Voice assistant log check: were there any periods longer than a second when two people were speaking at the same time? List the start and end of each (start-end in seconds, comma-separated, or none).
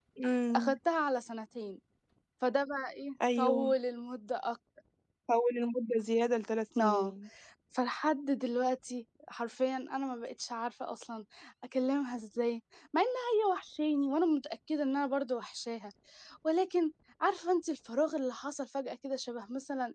none